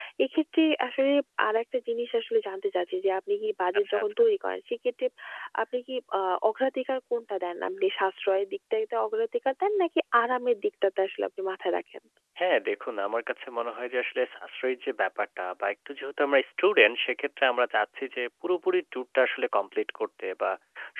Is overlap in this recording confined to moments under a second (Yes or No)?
Yes